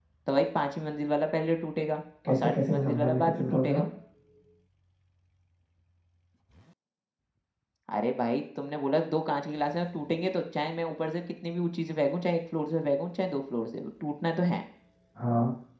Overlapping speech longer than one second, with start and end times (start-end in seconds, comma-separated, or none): 2.3-3.8